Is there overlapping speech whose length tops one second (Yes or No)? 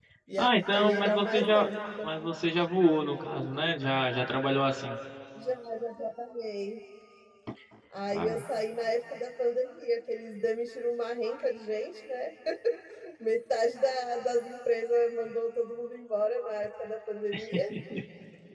Yes